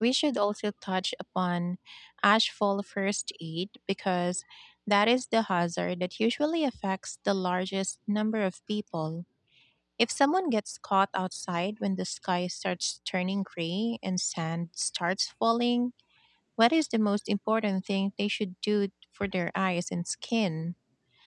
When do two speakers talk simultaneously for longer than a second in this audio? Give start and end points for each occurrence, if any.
none

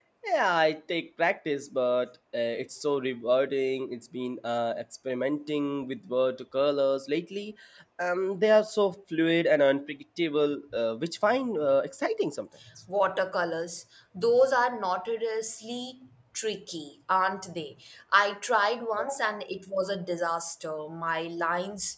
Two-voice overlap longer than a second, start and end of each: none

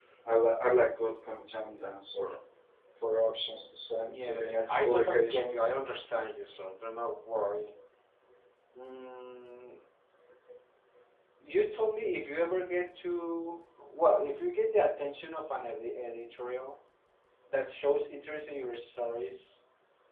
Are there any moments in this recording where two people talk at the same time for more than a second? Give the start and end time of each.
4.1-5.7

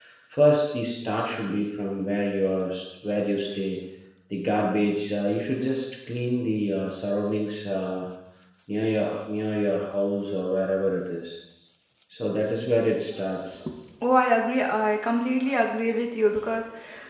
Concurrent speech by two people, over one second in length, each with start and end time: none

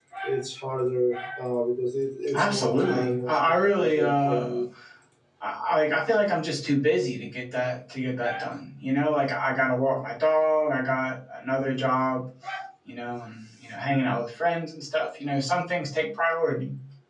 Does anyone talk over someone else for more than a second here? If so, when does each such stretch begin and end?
2.3-4.6

